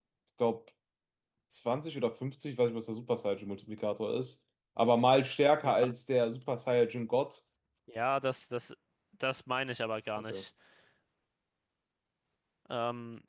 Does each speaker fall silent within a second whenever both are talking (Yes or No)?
Yes